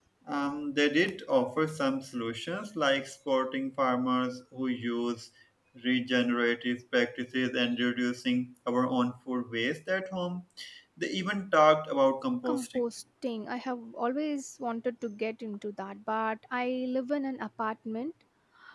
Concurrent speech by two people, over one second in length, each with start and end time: none

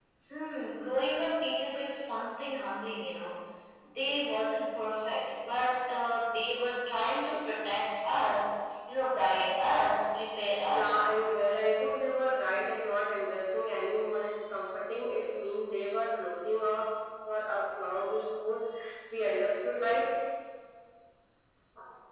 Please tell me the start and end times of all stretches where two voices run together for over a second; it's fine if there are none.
none

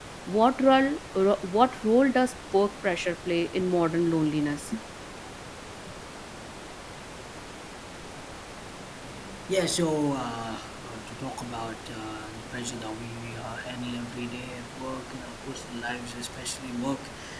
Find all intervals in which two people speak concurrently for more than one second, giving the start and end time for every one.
none

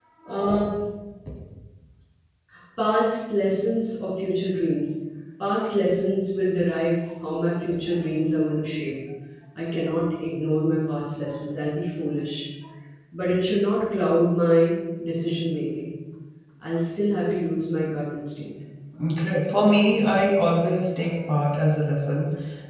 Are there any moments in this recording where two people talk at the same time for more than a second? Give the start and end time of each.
none

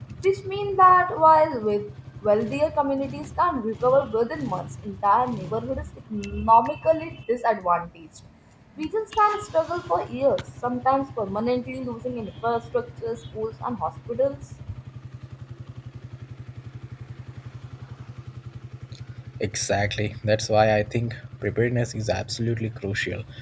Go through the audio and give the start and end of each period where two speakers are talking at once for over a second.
none

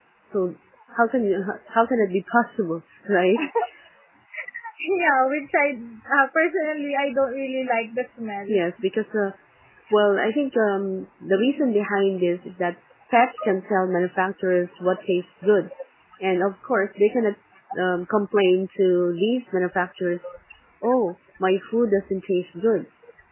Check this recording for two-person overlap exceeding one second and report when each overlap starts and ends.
none

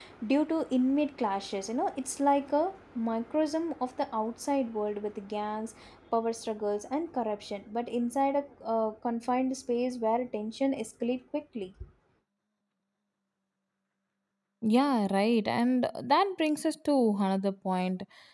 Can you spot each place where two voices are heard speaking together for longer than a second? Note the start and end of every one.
none

